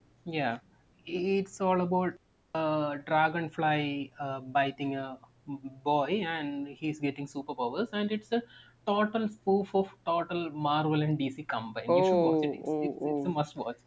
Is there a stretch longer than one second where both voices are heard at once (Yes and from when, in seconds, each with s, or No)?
Yes, from 11.9 s